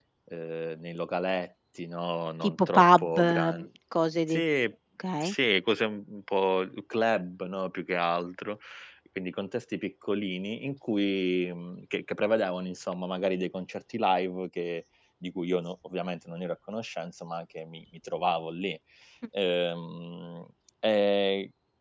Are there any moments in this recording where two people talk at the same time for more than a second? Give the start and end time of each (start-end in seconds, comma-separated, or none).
2.4-3.6